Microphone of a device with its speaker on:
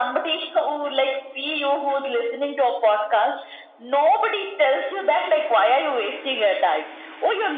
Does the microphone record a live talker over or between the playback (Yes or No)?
No